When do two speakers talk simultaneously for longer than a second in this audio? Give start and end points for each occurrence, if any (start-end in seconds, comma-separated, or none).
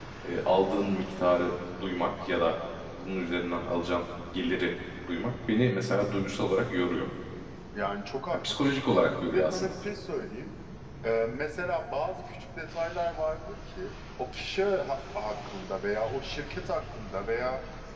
none